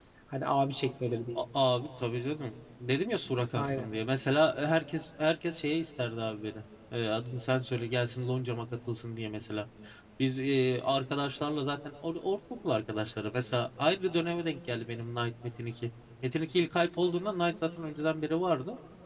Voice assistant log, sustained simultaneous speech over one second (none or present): none